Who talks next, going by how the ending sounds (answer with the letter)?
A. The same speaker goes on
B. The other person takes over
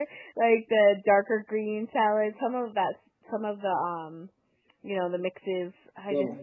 A